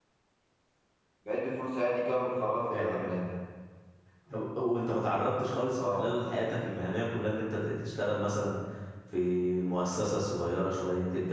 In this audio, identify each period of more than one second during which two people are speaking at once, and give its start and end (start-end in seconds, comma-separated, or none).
none